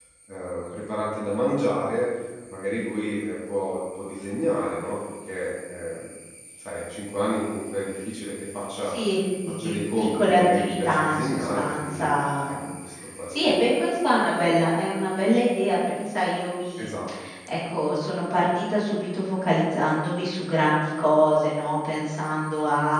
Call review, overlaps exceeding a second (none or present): present